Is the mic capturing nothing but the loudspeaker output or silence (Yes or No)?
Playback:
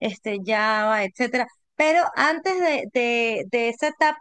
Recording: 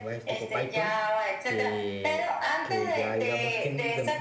No